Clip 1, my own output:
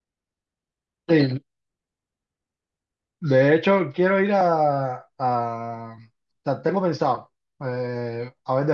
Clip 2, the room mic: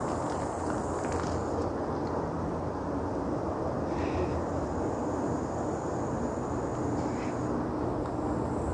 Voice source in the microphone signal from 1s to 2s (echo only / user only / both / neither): neither